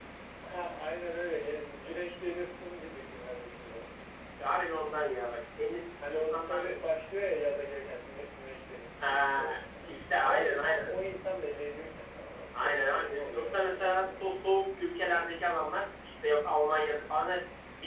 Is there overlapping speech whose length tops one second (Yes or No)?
Yes